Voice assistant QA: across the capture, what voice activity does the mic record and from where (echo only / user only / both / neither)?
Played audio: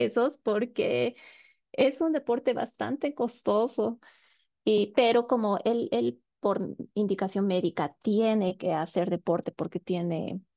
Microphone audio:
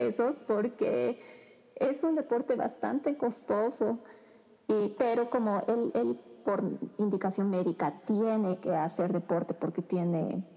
echo only